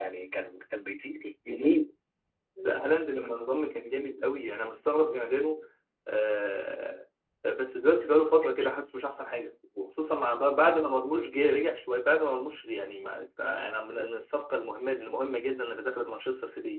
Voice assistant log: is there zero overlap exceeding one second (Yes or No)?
Yes